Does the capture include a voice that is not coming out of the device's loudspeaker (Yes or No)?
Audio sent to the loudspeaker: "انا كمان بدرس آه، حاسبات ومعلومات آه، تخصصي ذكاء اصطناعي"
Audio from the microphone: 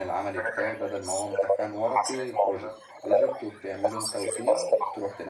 Yes